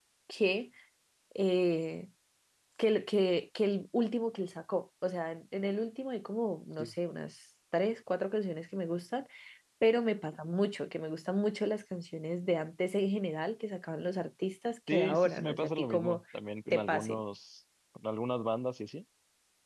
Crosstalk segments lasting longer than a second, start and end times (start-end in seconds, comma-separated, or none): 14.9-16.2